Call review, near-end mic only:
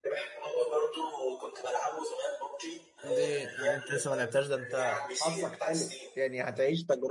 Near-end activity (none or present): present